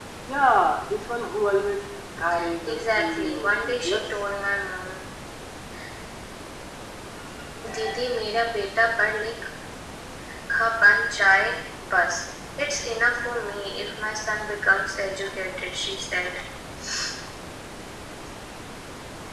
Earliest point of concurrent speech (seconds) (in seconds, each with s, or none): 2.7 s